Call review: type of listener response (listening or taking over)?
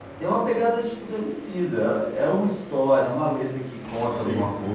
listening